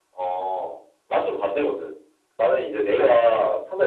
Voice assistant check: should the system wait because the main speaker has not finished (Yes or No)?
Yes